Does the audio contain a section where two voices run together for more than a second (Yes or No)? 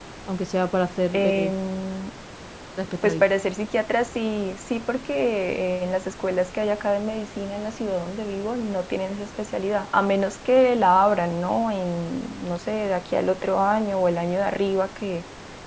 No